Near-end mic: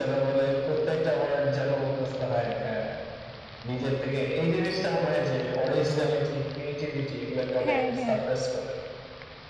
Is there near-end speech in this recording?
Yes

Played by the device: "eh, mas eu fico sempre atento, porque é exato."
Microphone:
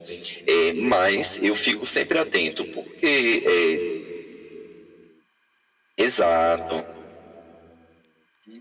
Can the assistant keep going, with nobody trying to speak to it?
Yes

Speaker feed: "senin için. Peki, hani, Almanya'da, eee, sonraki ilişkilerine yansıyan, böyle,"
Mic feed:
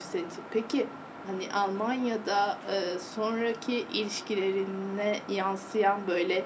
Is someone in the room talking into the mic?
No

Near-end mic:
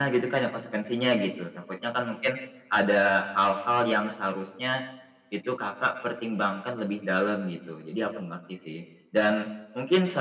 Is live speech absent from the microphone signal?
Yes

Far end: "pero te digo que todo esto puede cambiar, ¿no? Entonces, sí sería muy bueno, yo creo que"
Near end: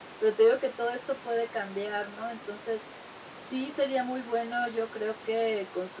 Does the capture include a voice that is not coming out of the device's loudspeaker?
No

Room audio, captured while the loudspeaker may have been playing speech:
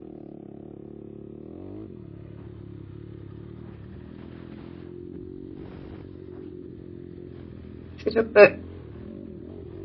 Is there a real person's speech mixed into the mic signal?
Yes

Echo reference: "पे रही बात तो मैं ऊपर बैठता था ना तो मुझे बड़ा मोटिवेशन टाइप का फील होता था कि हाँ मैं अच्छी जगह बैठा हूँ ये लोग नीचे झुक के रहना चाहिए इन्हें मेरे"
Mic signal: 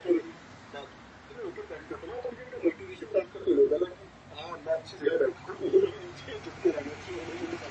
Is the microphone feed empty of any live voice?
Yes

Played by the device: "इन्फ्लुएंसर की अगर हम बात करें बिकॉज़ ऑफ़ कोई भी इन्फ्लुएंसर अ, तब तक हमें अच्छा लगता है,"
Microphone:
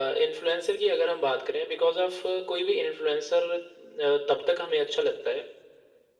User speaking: No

